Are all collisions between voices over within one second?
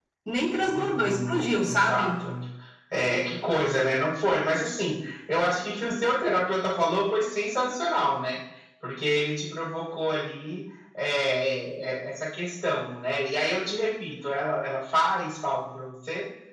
No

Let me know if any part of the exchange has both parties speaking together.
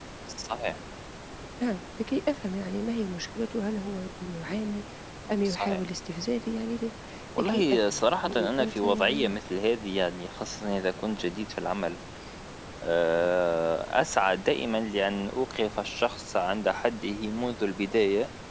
Yes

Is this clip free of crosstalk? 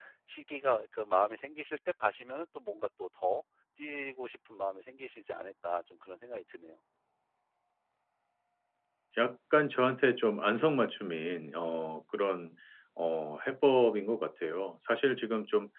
Yes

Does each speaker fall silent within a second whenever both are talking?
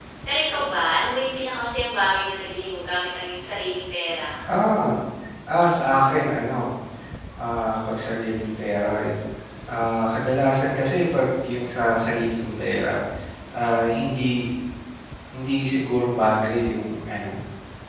Yes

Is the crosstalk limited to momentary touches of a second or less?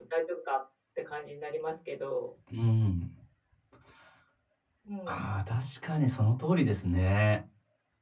Yes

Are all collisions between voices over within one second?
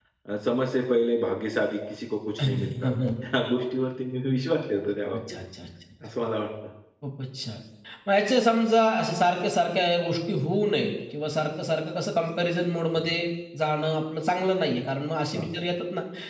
Yes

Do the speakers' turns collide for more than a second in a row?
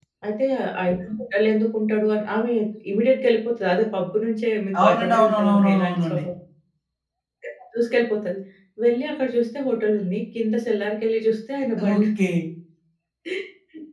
Yes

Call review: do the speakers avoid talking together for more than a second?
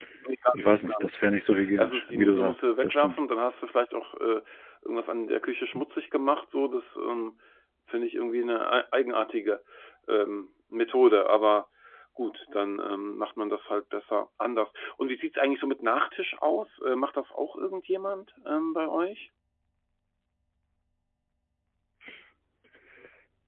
No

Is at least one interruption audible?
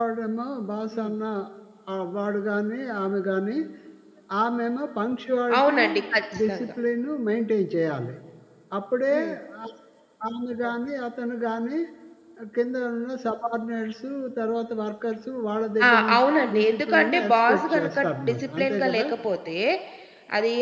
Yes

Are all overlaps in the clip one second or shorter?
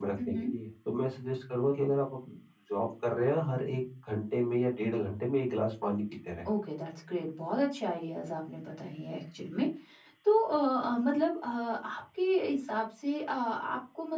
Yes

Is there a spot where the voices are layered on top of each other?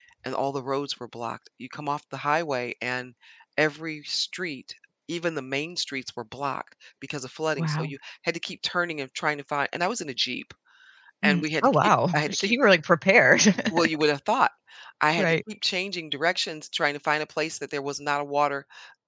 Yes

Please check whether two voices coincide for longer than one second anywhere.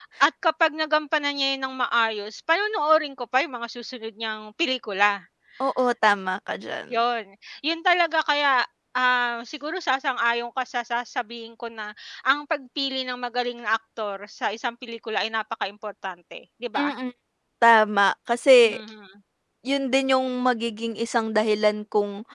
No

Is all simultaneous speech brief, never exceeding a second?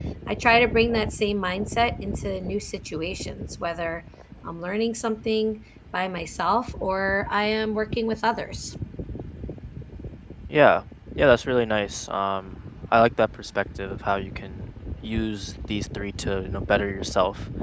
Yes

